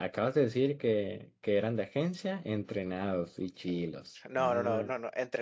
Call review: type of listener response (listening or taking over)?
taking over